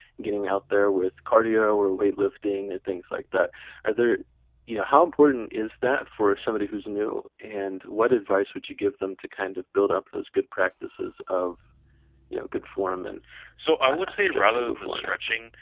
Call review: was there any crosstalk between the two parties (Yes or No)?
Yes